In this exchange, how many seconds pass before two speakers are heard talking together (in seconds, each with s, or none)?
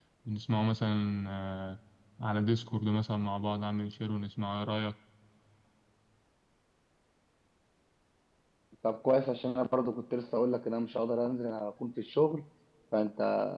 none